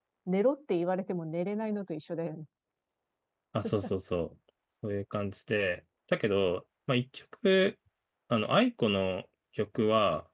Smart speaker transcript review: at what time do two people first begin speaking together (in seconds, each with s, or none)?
none